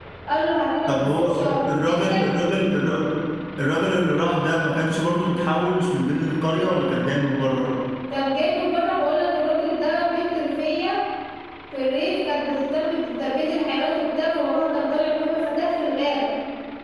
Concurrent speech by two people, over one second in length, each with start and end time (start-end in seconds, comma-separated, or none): 1.0-2.3